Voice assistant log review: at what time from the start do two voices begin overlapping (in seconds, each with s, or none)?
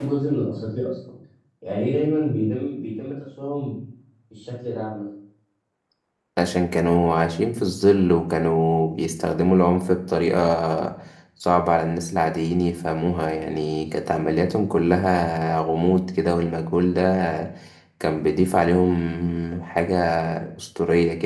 none